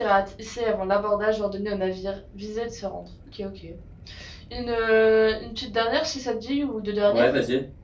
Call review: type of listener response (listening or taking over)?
taking over